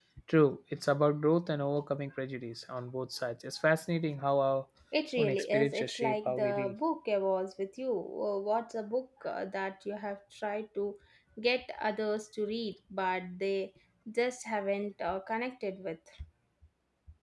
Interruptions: present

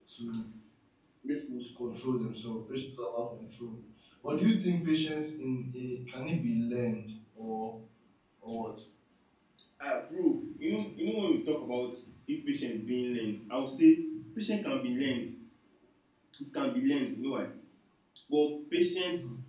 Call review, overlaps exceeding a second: none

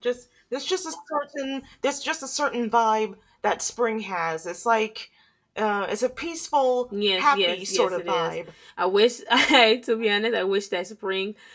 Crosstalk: present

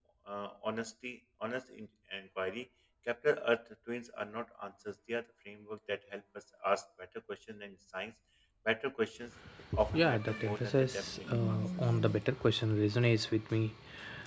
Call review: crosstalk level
present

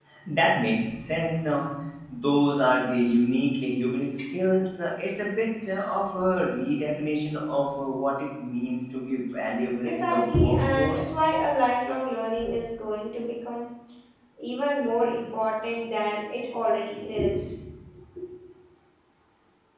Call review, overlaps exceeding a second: present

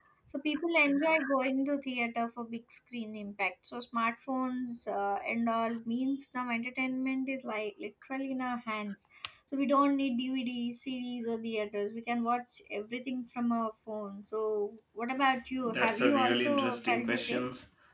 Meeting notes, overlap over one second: present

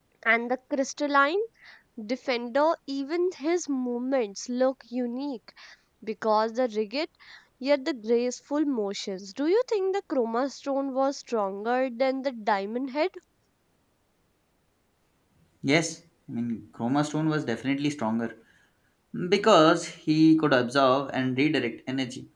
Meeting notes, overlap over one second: none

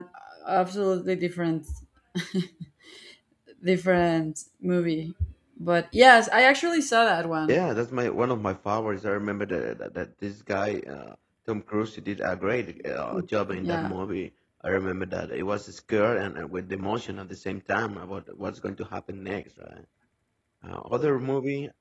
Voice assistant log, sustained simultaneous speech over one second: none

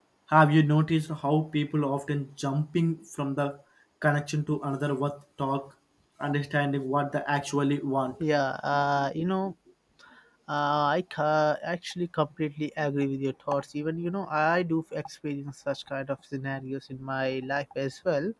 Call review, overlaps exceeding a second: none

